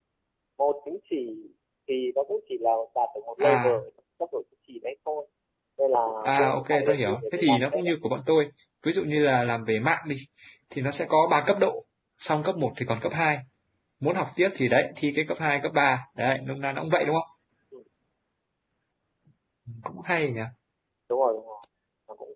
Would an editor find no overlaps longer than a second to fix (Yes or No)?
No